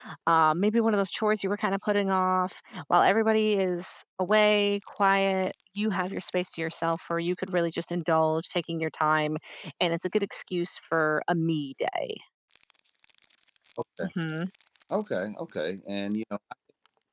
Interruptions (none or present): none